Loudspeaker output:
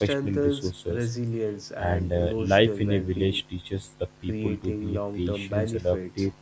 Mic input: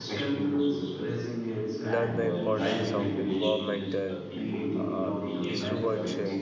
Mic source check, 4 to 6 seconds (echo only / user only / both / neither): both